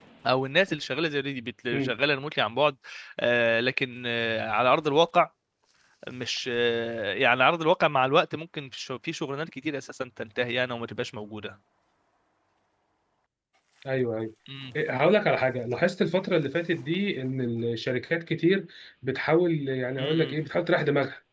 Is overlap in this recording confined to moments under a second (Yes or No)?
Yes